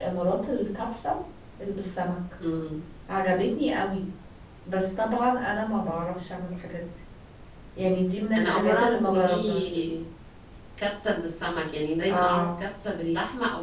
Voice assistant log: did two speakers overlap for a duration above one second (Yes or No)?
Yes